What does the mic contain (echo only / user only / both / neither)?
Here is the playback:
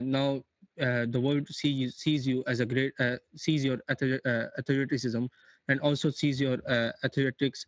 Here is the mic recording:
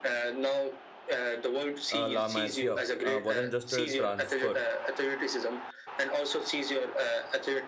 both